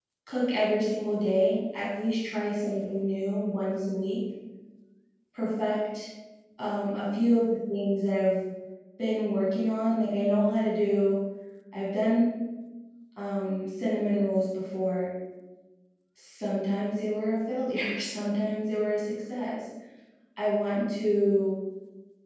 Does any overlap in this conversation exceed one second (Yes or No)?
No